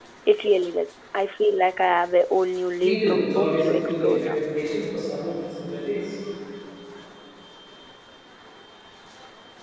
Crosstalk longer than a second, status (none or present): present